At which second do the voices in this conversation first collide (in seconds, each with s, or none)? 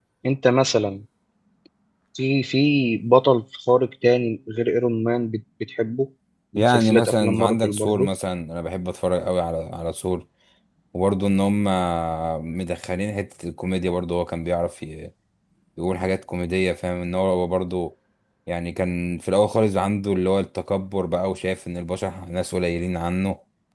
6.5 s